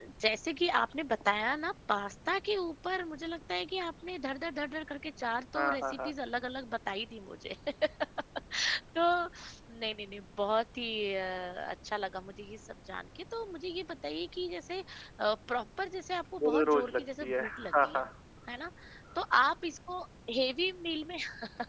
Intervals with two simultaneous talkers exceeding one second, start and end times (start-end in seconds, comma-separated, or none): 16.4-18.0